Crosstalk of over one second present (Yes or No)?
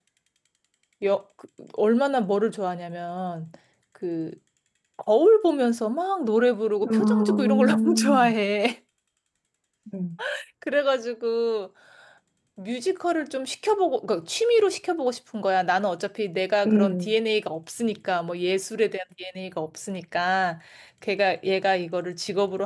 Yes